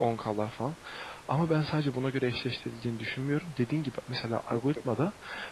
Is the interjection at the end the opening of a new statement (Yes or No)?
No